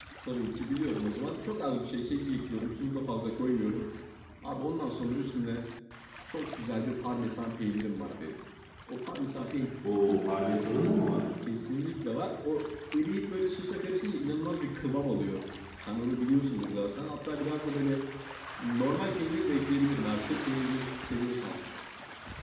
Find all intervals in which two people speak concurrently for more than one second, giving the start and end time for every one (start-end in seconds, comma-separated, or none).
none